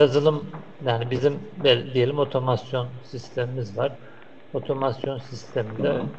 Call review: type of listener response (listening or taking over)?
listening